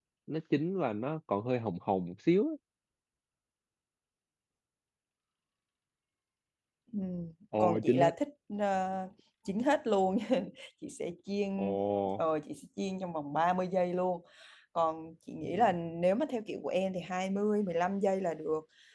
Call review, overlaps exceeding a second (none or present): none